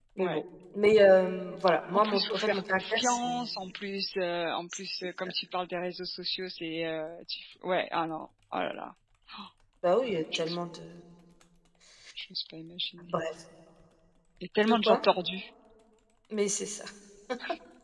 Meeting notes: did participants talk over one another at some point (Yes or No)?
Yes